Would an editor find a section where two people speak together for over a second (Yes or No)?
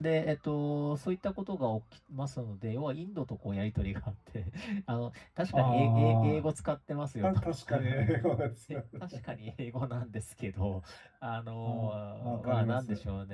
Yes